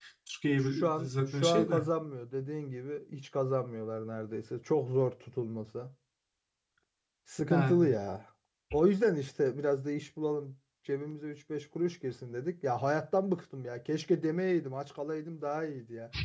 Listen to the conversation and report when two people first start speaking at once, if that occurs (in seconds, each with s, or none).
0.6 s